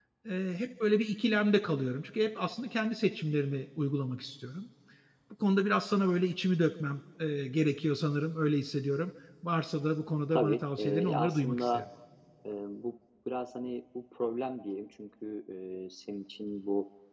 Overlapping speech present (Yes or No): Yes